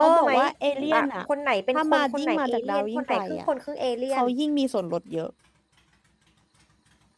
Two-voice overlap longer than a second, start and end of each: 1.7-3.4

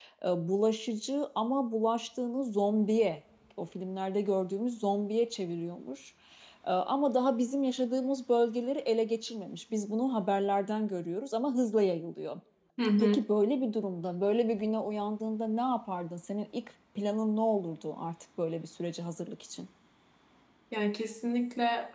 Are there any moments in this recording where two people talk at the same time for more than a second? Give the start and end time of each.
none

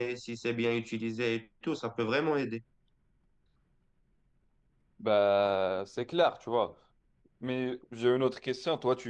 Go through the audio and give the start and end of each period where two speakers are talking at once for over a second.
none

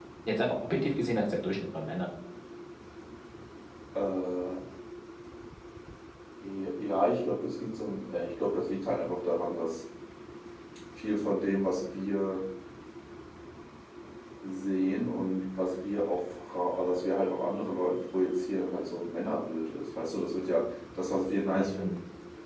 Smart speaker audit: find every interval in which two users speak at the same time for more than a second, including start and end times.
none

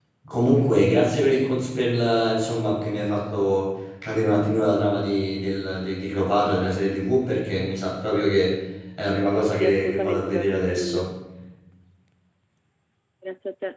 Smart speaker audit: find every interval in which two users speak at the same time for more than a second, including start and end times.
9.5-11.1

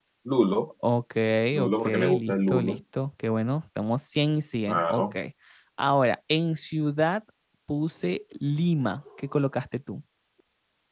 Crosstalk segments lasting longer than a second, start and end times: 1.6-2.8

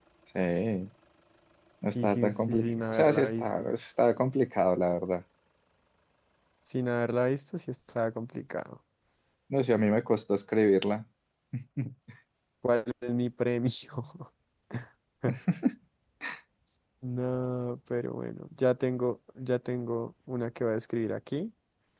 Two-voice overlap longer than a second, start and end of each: 1.9-3.7

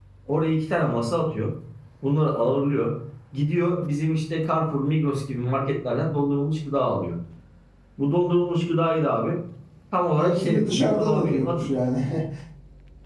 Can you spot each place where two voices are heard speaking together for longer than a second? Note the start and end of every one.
10.2-11.7

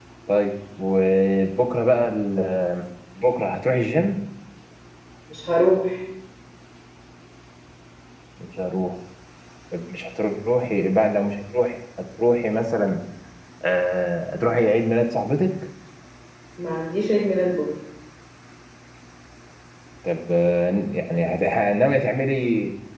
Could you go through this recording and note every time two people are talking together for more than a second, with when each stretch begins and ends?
none

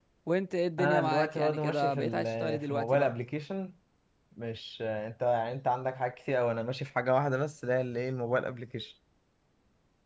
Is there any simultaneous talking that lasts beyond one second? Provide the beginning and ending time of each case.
0.8-3.1

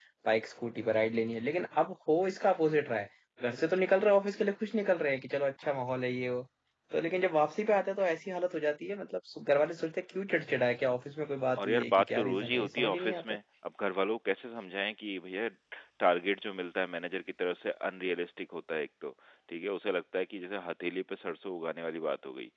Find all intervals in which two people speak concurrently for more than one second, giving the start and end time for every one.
11.6-13.4

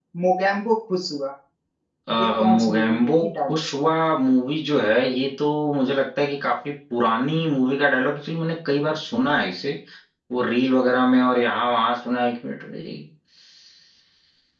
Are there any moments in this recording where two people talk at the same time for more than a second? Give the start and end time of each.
2.2-3.6

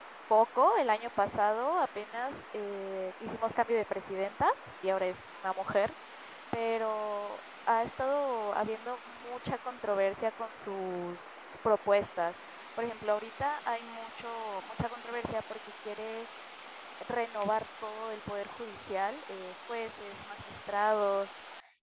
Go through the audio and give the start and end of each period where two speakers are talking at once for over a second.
none

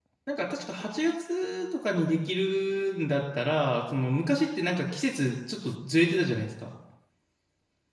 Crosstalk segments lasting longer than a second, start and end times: none

